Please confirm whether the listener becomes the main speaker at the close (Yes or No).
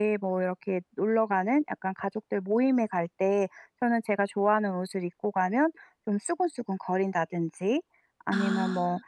No